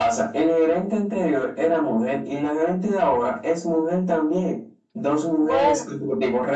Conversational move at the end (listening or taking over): listening